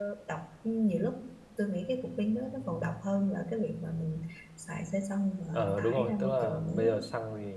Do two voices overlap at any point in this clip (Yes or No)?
Yes